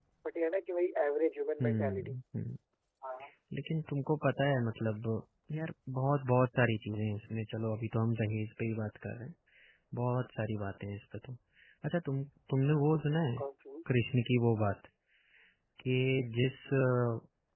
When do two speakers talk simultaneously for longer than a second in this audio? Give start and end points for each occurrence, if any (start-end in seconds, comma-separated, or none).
none